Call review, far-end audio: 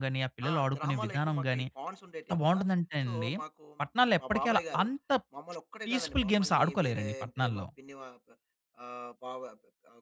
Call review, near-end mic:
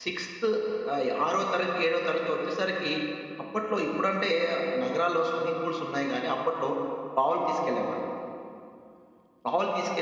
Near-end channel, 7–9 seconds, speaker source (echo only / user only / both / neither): user only